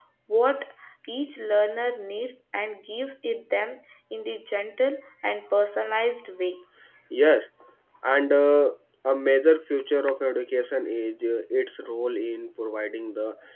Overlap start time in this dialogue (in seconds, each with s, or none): none